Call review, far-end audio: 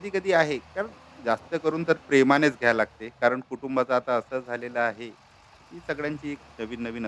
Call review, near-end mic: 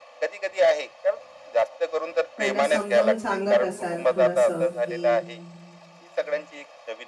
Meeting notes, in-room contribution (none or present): present